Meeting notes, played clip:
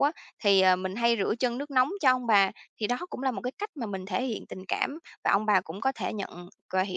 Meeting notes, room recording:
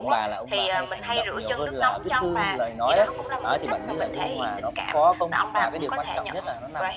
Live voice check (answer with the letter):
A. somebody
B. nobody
A